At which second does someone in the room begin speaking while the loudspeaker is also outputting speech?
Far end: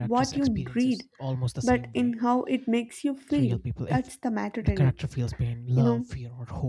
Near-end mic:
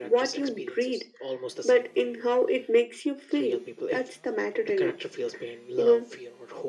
none

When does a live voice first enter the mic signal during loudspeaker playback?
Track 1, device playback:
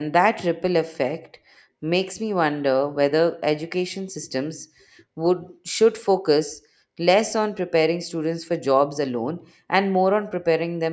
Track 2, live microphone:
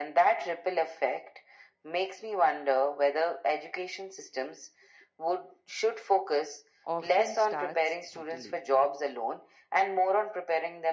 6.8 s

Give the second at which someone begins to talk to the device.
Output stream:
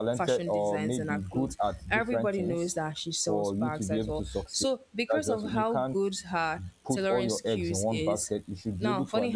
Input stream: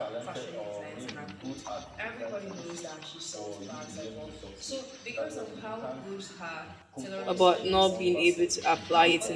7.2 s

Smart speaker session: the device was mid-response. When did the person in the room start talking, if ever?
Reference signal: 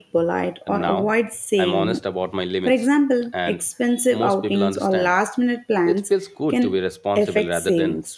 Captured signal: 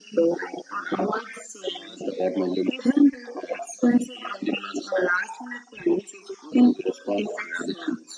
none

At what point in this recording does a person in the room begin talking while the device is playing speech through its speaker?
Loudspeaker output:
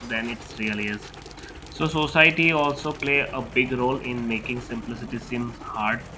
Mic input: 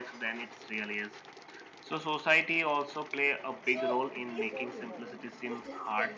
3.6 s

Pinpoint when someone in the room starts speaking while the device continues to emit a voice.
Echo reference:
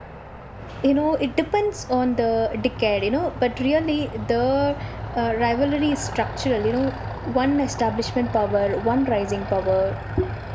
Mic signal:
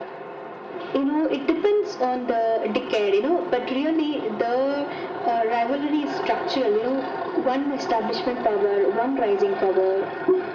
none

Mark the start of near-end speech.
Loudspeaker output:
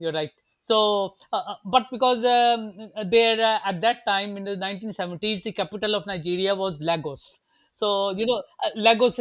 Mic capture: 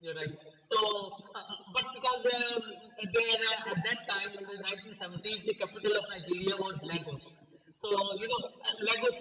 none

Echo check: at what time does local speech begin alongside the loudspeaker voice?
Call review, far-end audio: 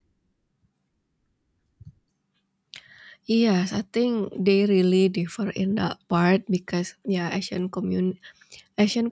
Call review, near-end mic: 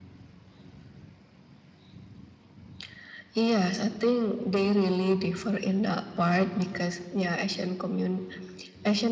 none

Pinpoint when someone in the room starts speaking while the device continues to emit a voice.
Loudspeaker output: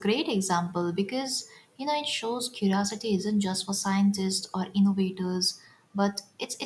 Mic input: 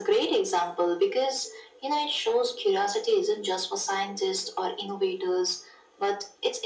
none

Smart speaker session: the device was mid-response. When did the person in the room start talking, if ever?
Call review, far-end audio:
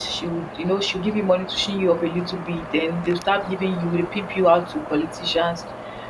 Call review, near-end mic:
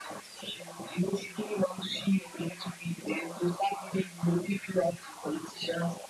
none

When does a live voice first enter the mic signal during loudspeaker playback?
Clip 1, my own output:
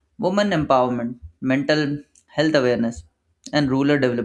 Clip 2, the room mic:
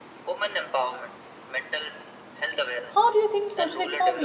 2.9 s

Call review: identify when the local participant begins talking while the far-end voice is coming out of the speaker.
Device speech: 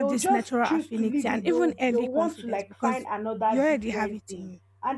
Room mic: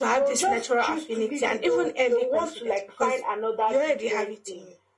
none

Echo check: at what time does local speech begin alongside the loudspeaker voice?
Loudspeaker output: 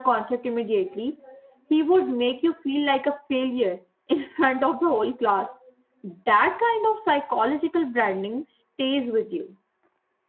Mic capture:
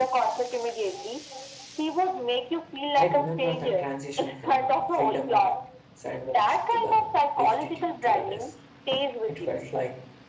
2.9 s

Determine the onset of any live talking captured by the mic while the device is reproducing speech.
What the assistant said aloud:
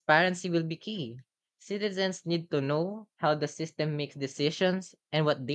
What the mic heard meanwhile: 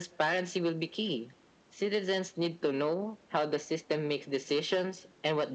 none

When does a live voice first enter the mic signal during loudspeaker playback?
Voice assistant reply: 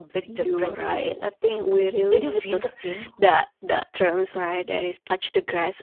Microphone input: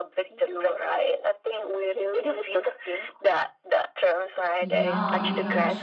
4.6 s

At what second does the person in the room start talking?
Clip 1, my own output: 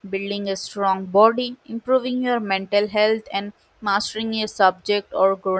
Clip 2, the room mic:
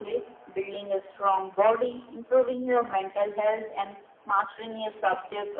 none

